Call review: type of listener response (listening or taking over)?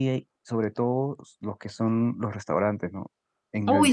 taking over